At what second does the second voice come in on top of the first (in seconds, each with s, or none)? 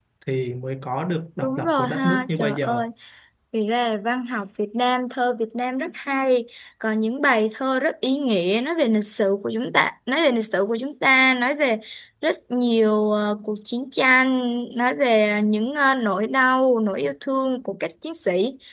1.4 s